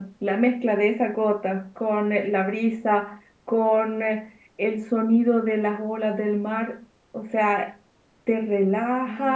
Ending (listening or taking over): listening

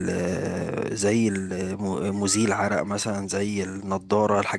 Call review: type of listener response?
listening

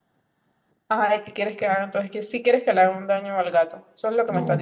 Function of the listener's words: taking over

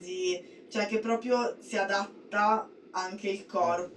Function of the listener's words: listening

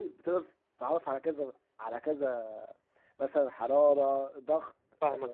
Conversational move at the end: taking over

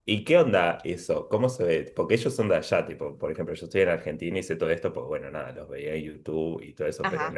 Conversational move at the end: listening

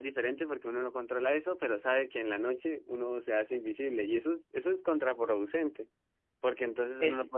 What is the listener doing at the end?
listening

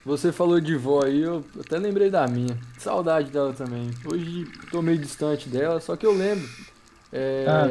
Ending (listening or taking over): listening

